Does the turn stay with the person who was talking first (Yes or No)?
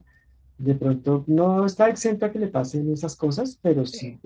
Yes